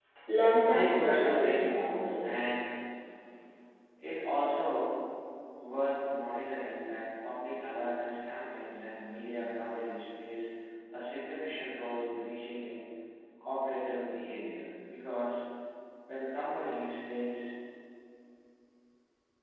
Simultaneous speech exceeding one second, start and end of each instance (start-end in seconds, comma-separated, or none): 0.6-2.1